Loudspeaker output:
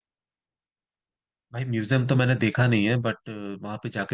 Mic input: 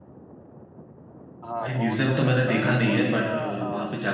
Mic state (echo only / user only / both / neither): both